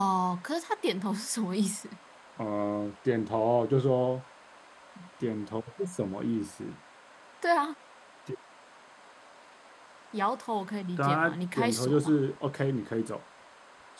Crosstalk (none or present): present